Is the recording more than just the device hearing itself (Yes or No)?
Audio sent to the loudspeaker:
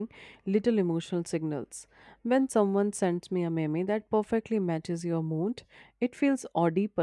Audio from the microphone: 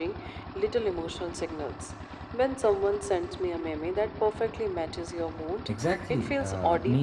Yes